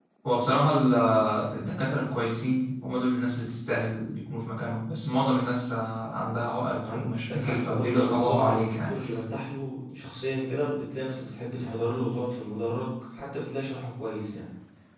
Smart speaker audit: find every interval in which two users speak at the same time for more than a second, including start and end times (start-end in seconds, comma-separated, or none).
6.8-8.9